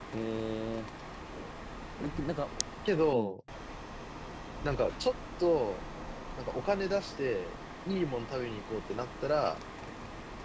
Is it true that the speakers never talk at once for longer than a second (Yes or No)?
Yes